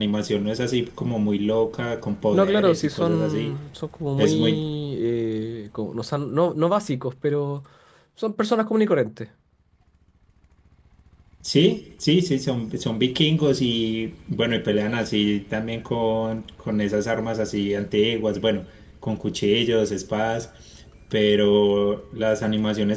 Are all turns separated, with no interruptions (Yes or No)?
No